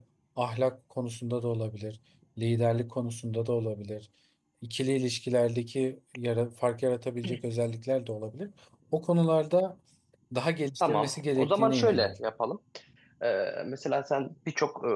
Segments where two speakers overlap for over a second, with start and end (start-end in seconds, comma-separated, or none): 10.8-12.1